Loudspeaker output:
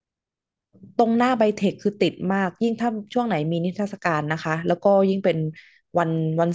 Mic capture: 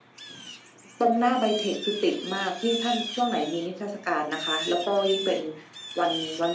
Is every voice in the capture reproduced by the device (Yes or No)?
Yes